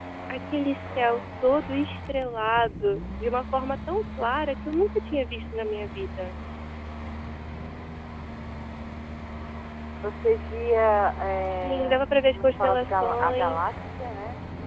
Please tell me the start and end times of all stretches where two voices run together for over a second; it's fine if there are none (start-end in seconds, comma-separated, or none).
11.6-13.6